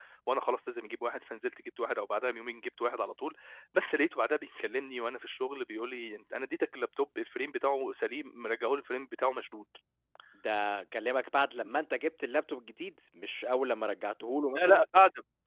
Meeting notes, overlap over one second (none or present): none